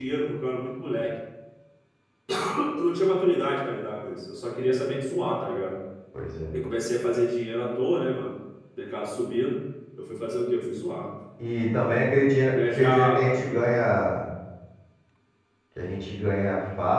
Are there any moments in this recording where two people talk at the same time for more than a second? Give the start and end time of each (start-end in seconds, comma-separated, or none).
12.4-13.7